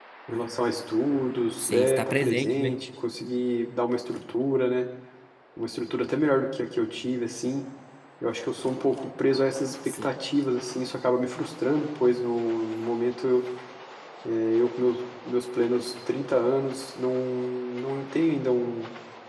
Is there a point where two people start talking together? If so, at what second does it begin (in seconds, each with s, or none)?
1.6 s